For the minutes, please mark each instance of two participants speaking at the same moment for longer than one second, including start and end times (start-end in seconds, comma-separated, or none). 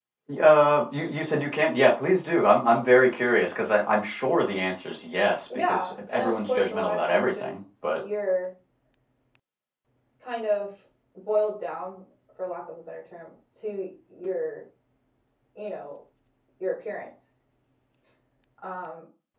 5.5-7.5